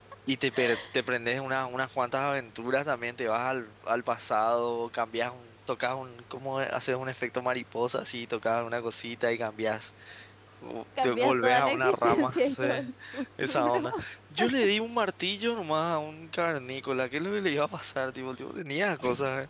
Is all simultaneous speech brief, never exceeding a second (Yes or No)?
No